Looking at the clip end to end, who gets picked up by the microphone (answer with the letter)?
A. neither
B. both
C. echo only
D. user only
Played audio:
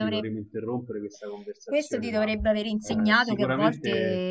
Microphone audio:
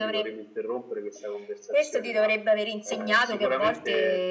C